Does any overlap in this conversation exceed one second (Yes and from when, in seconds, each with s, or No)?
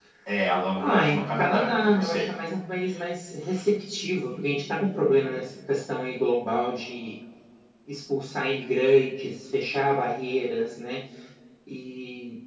Yes, from 0.8 s